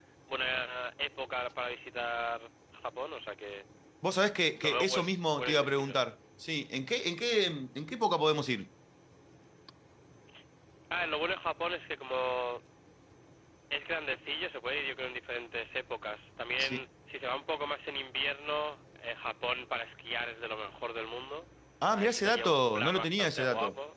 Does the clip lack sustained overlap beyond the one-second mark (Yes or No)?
No